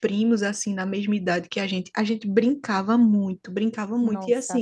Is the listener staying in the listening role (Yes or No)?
Yes